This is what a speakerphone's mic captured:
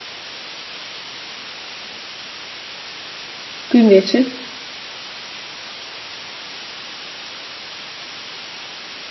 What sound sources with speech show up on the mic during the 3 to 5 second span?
user only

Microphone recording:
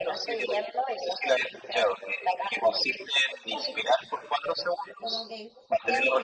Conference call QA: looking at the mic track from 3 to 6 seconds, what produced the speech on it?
both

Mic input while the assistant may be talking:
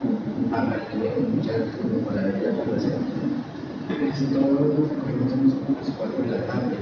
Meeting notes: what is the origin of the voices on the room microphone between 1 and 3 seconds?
echo only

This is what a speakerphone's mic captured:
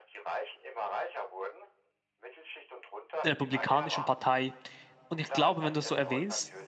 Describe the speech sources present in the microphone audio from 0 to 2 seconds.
echo only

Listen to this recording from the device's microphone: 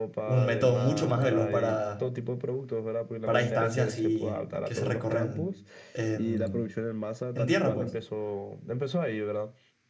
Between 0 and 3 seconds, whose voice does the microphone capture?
both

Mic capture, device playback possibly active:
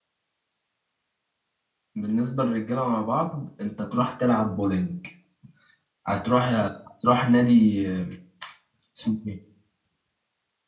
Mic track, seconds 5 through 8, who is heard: user only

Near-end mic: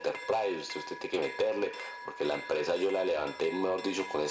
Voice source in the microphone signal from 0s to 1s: echo only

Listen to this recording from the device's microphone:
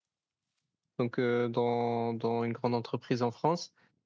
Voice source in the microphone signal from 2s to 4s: user only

